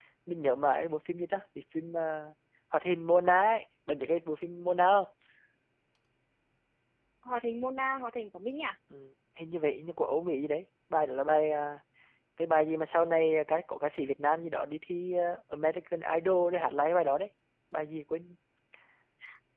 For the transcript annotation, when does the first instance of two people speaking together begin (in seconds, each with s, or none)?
none